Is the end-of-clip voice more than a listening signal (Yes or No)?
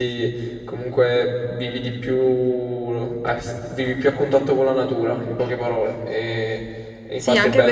Yes